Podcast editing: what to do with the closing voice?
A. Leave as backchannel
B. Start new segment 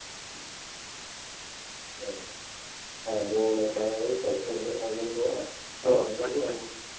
B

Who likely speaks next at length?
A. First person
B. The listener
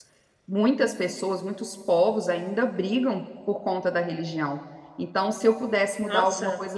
A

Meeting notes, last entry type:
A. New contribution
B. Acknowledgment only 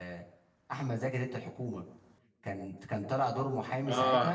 A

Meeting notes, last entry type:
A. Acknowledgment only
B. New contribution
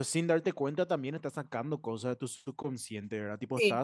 A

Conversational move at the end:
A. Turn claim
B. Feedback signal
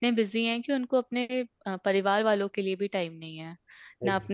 B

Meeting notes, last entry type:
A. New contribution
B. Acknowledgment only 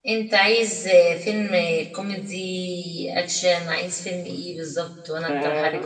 A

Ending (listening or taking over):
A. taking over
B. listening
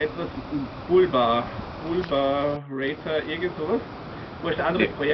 B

